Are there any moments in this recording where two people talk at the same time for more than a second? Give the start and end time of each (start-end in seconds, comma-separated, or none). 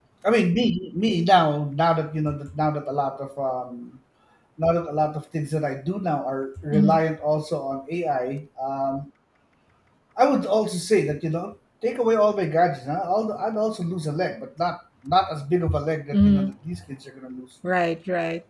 none